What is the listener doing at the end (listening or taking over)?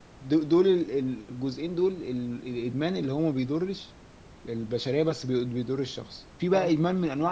listening